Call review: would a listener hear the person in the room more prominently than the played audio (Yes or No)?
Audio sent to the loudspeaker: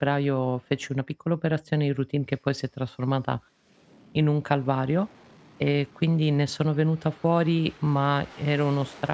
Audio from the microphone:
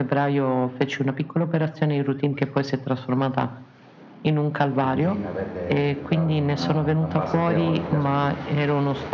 No